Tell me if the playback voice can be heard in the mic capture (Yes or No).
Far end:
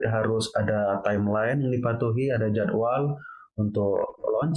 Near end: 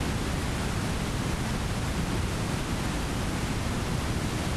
No